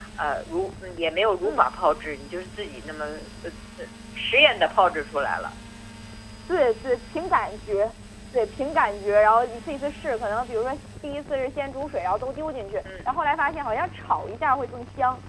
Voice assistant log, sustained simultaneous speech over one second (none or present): none